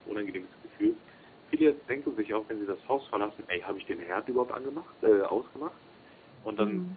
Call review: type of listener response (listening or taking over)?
listening